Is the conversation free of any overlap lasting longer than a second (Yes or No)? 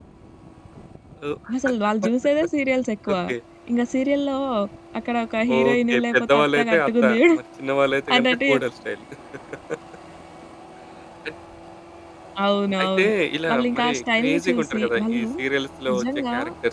No